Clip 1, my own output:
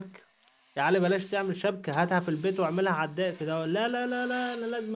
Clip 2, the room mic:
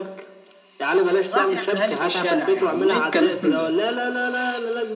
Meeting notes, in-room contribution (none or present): present